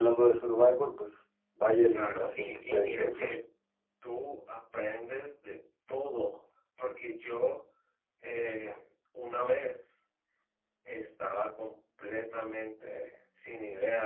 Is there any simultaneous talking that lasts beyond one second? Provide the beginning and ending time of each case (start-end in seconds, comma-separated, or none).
1.9-3.3